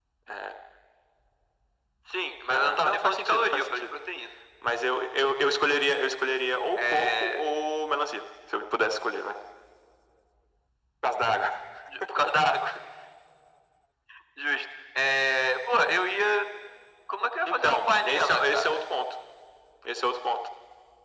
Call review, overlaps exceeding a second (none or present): present